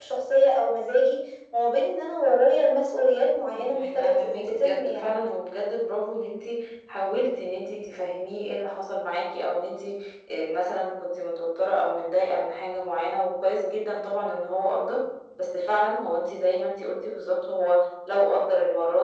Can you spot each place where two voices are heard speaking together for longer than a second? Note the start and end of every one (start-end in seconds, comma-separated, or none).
3.5-5.2